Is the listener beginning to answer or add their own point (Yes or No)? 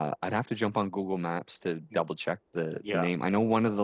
No